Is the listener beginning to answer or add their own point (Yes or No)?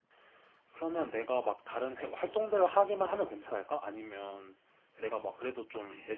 No